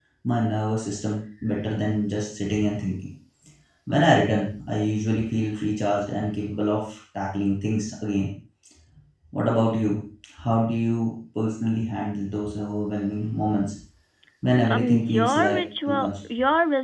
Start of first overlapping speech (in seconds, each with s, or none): 14.7 s